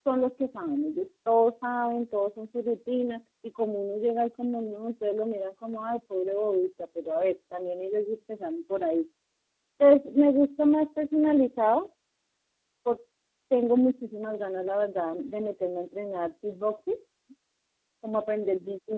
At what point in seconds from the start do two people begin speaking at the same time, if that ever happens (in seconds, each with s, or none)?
none